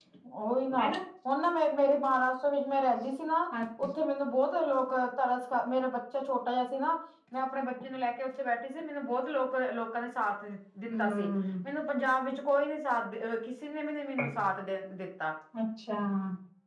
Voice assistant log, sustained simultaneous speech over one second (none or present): none